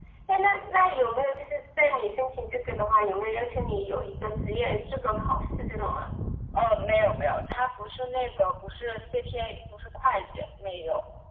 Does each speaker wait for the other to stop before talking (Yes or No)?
Yes